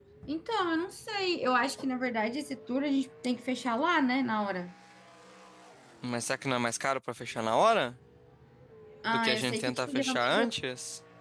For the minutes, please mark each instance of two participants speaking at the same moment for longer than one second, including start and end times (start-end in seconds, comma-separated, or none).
9.1-10.5